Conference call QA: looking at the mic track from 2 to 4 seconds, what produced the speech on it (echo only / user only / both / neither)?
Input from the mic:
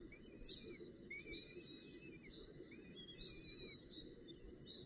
neither